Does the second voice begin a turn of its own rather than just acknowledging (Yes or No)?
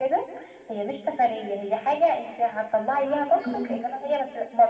No